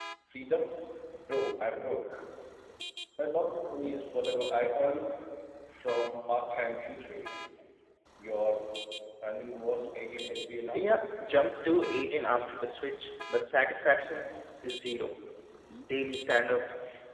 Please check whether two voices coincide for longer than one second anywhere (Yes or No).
No